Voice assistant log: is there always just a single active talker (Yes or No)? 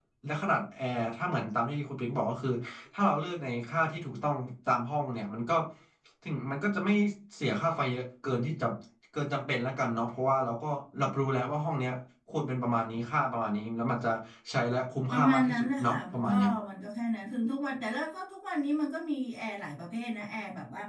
No